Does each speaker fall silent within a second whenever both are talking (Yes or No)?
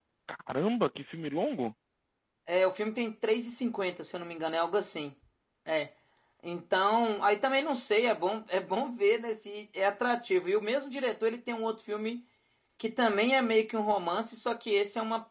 Yes